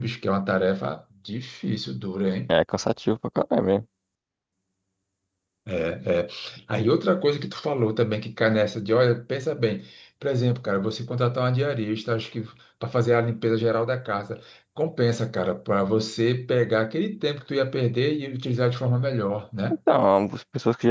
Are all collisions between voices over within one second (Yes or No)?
Yes